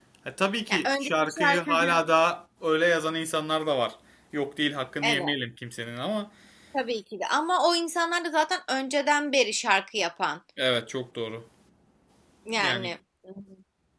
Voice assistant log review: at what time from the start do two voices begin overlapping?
0.7 s

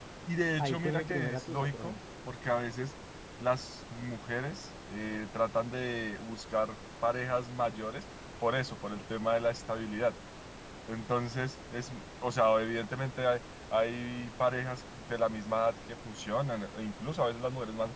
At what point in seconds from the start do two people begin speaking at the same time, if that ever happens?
0.6 s

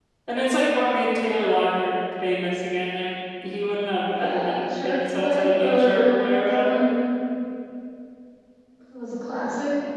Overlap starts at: 4.2 s

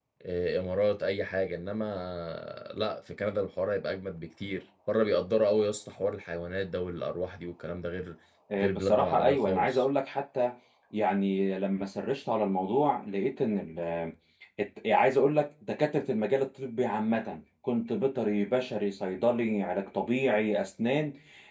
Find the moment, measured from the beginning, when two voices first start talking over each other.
8.6 s

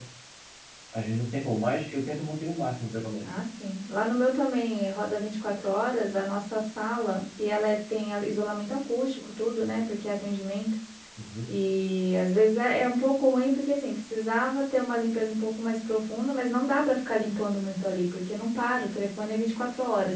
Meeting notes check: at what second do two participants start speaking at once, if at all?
none

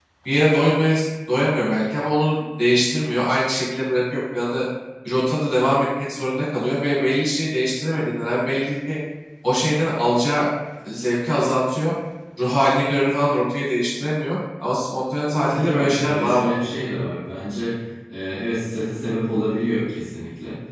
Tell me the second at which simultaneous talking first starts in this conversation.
15.3 s

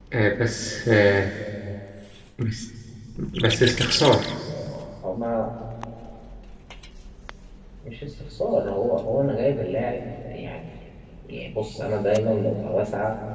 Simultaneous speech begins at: none

